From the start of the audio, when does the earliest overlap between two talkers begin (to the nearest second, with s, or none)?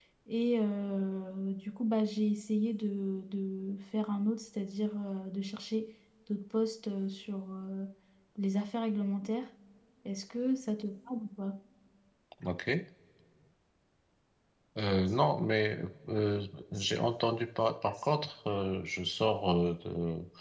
none